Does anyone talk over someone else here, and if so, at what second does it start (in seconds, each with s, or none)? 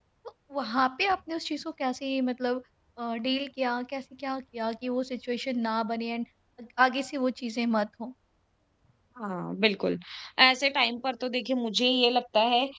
none